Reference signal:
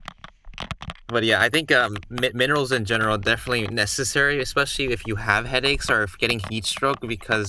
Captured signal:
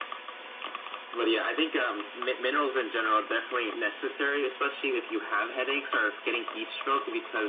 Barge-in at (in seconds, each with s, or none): none